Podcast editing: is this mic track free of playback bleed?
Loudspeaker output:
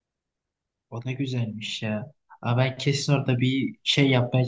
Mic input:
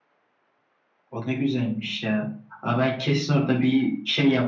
No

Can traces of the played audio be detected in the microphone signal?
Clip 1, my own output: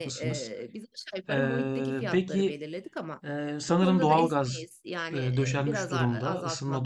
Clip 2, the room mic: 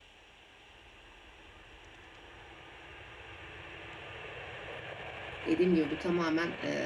No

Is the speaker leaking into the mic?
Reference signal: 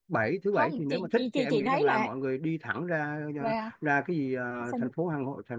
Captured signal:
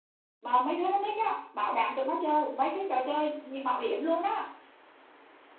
No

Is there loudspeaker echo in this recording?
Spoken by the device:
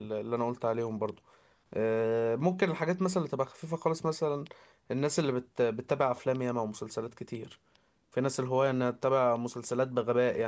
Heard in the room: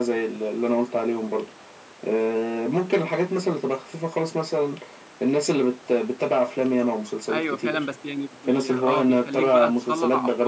Yes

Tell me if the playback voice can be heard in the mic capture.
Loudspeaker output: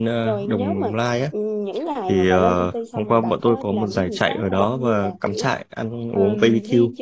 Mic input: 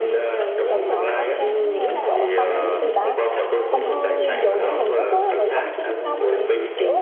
Yes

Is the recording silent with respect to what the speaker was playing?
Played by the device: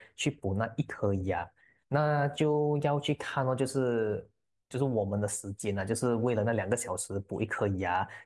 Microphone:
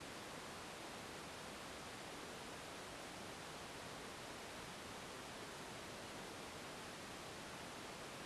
Yes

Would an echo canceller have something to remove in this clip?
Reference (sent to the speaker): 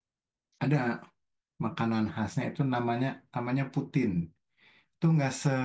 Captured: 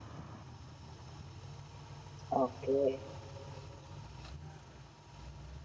No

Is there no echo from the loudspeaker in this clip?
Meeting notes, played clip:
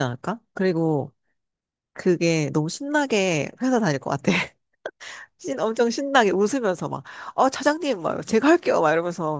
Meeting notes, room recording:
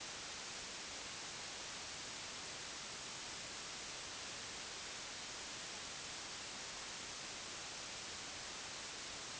Yes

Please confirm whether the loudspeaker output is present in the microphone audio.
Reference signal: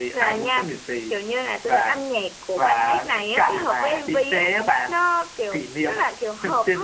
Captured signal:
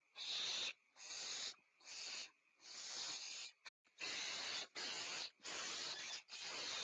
No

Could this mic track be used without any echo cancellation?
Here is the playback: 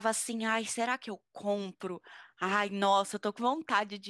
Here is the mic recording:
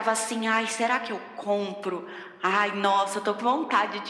No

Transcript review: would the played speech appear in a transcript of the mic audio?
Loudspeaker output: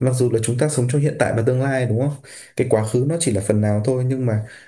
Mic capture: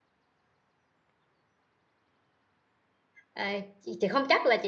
No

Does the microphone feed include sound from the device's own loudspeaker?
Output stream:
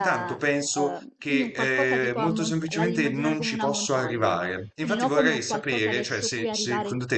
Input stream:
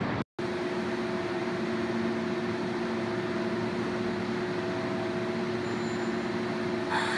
No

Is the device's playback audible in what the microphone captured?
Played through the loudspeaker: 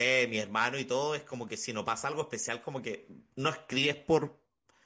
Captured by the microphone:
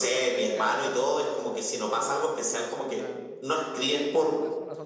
Yes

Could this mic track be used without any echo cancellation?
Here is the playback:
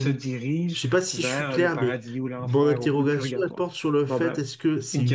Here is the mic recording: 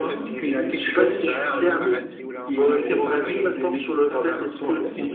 No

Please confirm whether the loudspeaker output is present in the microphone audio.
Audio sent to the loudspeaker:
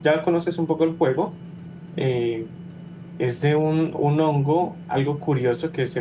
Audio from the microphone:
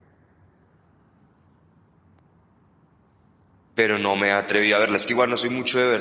No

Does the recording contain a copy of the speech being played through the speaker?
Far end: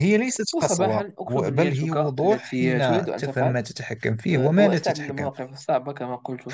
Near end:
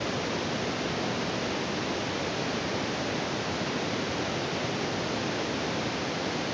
No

